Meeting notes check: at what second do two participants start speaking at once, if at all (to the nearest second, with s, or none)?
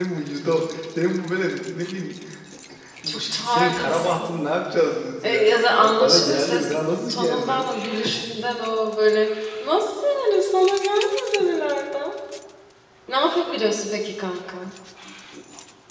3 s